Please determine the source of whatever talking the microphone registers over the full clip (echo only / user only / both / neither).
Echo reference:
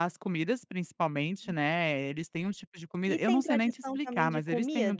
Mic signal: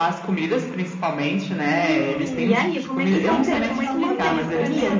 both